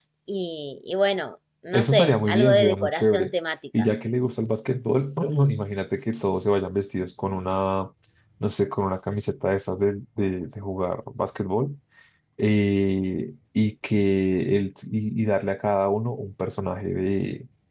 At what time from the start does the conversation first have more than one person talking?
1.7 s

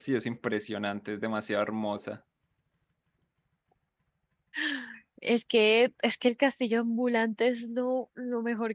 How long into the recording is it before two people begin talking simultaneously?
none

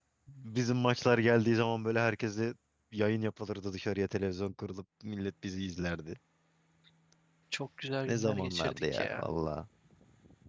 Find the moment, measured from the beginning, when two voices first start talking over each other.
8.1 s

